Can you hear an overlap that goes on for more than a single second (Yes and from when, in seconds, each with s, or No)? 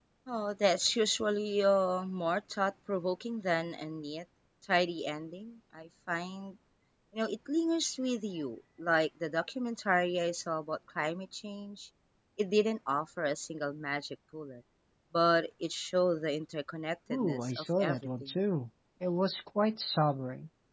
Yes, from 17.1 s